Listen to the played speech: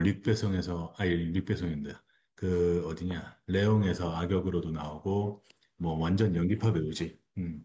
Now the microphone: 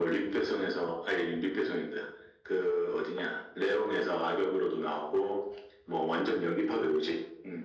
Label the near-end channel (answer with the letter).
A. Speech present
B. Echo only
B